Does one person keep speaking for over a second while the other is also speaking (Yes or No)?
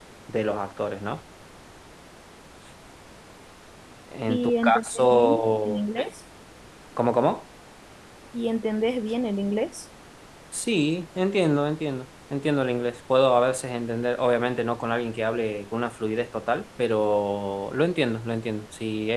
Yes